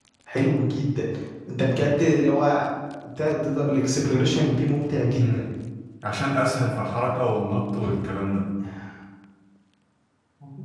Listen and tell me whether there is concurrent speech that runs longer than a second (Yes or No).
No